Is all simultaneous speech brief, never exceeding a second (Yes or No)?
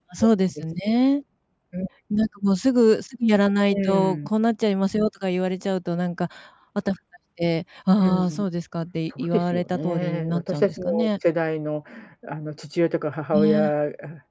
No